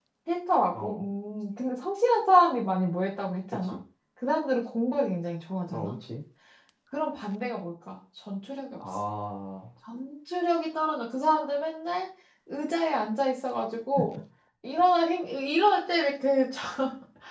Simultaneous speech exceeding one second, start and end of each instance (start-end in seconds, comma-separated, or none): none